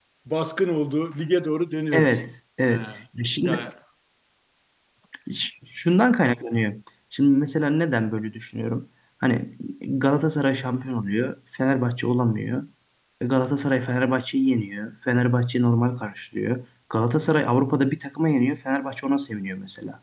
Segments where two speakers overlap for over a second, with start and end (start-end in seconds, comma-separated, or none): none